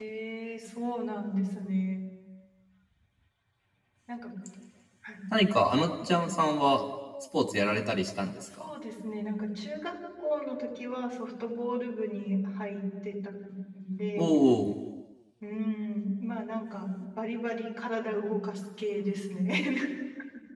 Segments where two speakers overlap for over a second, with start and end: none

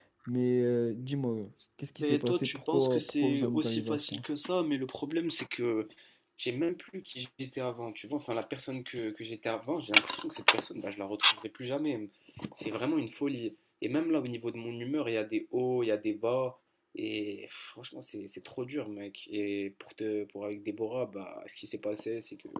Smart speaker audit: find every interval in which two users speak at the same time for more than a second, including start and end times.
2.0-4.2

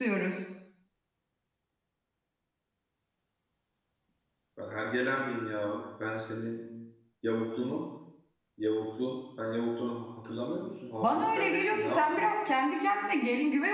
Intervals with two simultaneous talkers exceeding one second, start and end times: 11.0-12.3

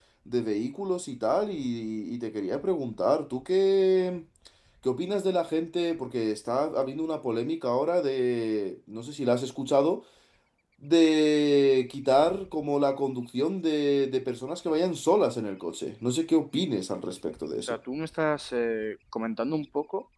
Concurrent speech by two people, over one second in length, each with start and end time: none

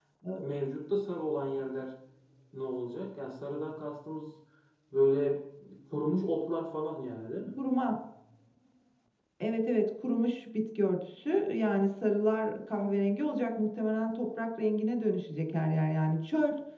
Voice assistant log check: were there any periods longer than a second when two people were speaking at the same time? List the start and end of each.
none

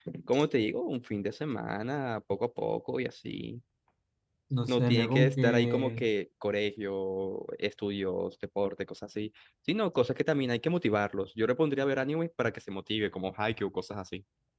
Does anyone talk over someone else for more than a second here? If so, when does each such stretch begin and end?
4.7-6.0

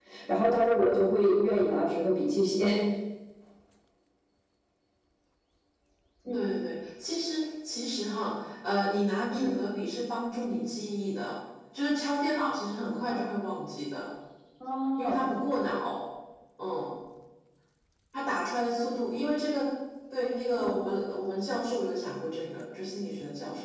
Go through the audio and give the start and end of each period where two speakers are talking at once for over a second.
none

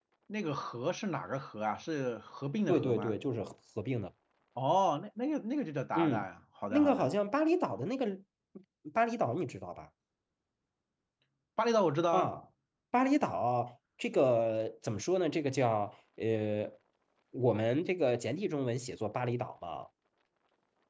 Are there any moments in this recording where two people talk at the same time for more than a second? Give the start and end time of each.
none

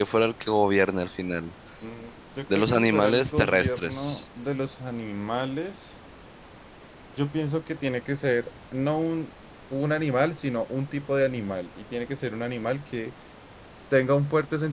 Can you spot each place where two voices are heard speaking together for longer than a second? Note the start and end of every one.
2.5-4.2

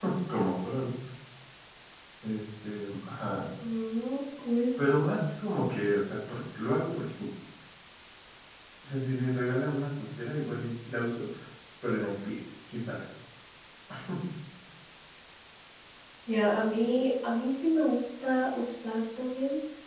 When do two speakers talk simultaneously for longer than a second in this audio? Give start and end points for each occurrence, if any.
none

